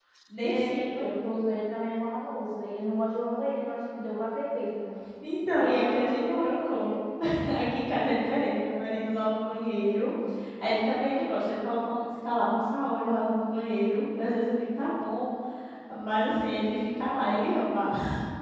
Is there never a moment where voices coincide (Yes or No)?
No